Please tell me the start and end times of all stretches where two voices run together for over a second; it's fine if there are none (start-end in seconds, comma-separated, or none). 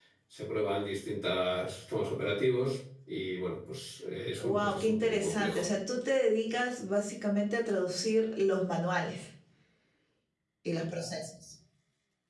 4.4-5.6